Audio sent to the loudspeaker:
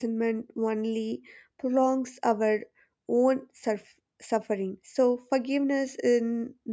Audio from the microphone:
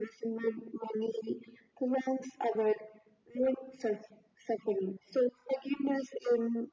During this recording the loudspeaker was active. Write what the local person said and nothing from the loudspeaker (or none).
none